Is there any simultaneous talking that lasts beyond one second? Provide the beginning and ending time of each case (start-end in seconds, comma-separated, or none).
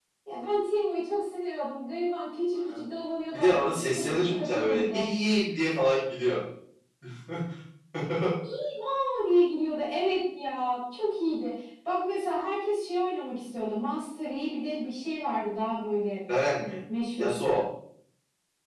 3.3-5.1